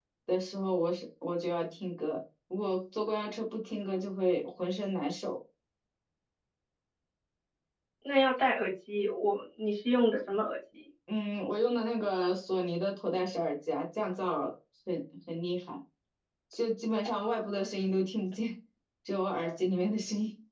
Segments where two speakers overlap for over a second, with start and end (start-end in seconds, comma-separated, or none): none